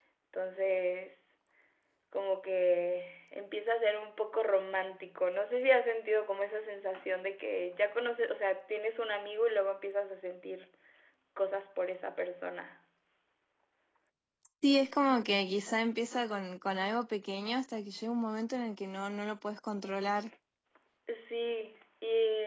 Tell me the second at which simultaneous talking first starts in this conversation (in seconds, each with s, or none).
none